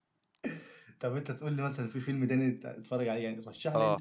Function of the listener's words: taking over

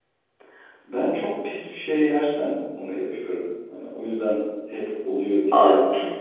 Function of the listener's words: taking over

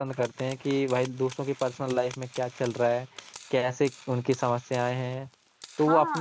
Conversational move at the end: taking over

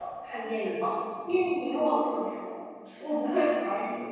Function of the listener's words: listening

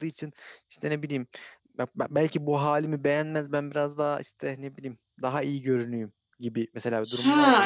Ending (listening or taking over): taking over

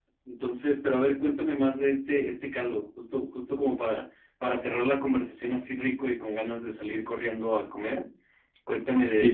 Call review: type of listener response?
taking over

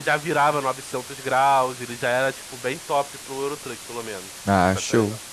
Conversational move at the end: taking over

